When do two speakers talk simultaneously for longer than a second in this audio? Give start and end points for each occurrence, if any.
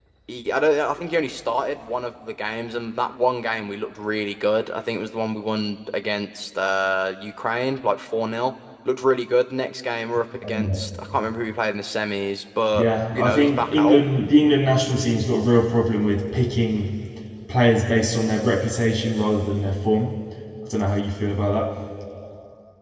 12.7-14.0

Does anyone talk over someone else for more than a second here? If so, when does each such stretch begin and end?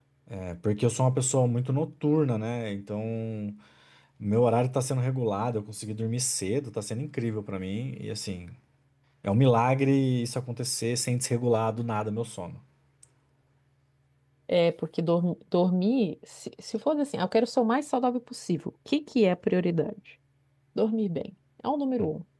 none

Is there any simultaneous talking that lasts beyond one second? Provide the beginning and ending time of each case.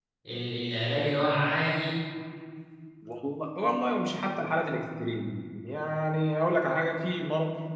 none

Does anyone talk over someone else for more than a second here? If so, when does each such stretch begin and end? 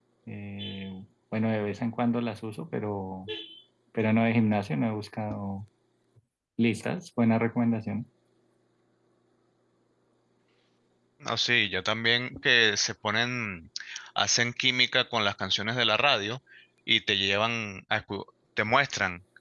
none

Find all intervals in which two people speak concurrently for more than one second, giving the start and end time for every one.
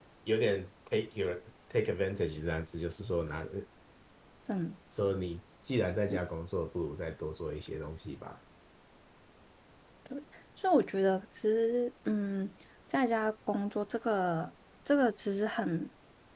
none

